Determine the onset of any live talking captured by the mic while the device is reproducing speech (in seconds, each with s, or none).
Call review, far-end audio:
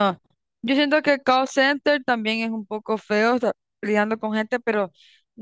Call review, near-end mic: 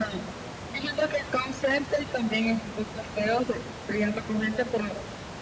none